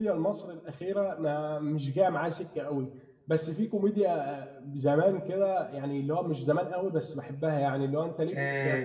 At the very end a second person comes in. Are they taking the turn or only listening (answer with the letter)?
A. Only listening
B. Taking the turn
B